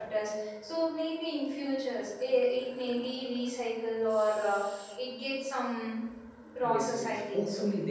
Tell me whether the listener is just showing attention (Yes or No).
No